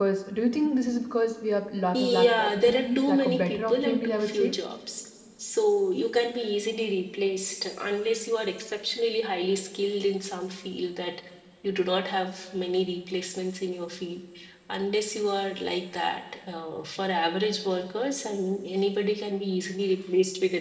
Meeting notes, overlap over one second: present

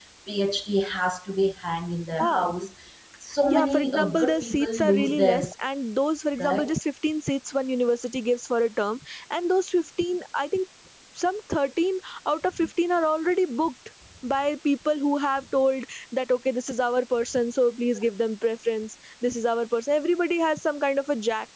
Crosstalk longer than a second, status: present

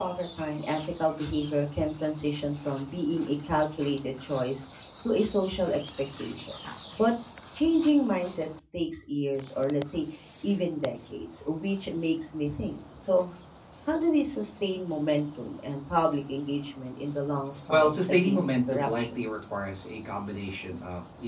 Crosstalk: present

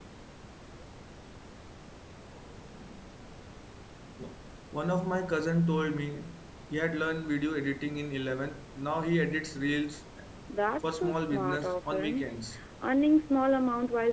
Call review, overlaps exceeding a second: present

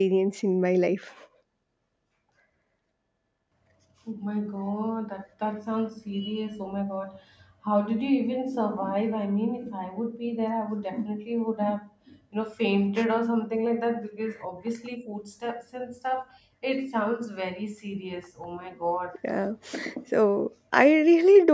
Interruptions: none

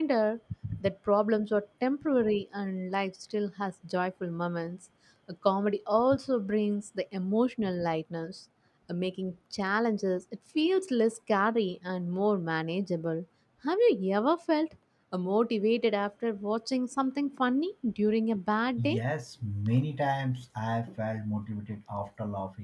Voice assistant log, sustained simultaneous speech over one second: none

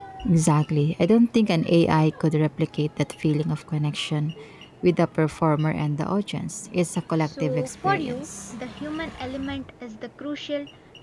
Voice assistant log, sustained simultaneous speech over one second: present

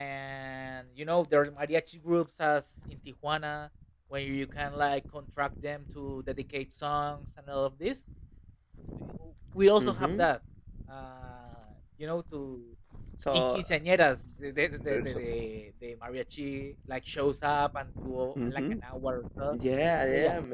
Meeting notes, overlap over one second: none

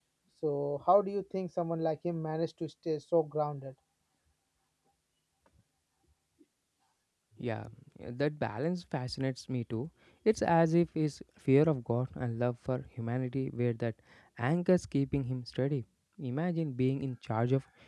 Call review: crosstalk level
none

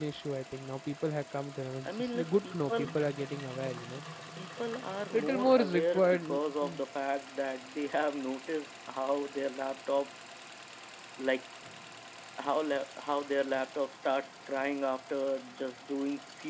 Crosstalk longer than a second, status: present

